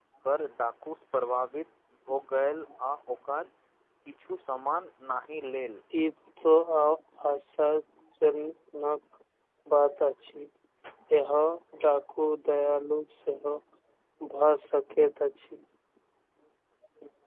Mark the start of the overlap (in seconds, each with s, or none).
none